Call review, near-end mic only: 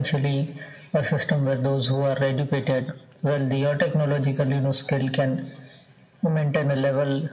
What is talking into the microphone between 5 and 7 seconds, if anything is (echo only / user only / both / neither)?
echo only